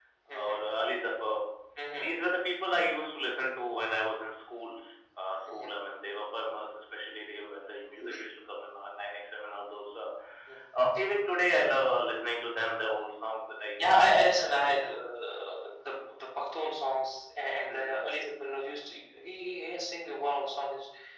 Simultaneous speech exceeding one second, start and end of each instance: 13.8-15.0

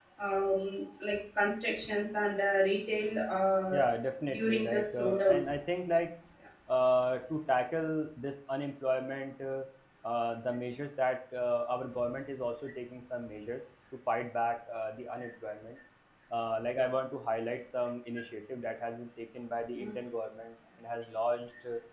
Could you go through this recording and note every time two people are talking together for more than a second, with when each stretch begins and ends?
4.3-5.5

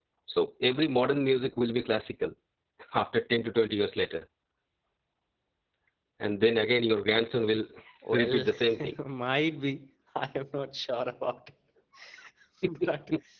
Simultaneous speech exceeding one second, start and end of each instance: none

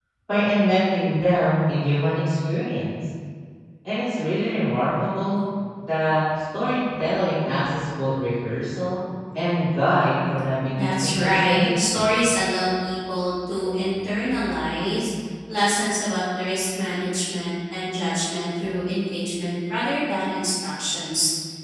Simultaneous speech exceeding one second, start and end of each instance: 10.8-12.1

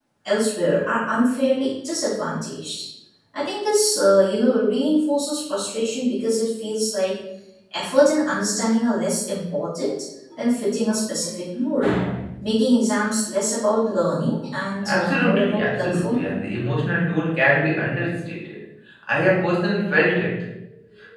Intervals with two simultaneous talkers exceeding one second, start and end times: 14.8-16.3

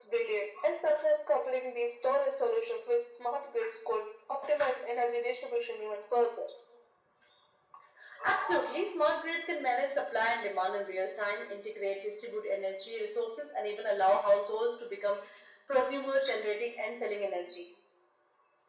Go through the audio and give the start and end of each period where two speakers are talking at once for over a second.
none

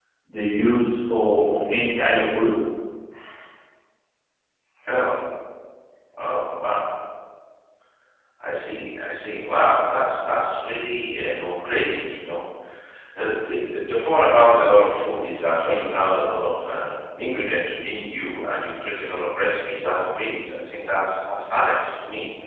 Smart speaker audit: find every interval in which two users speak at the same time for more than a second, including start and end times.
none

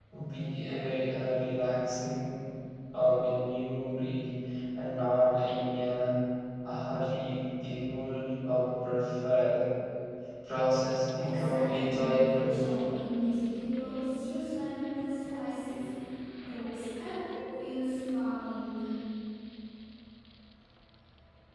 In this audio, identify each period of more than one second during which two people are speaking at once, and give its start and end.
11.2-12.6

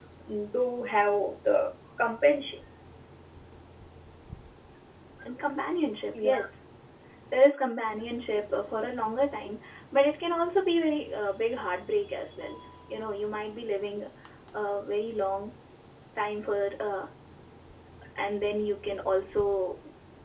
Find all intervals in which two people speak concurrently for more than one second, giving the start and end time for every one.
none

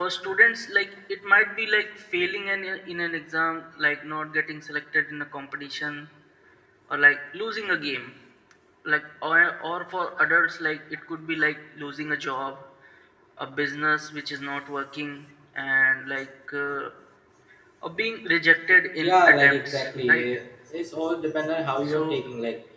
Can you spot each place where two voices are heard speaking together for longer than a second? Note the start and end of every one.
19.0-20.2

